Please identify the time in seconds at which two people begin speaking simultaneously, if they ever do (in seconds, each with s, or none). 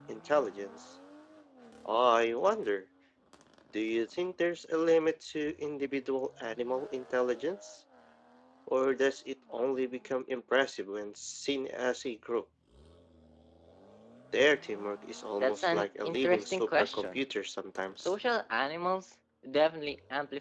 15.4 s